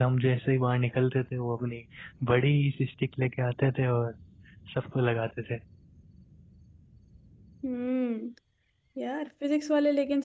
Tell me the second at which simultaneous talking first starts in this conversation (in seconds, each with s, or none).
none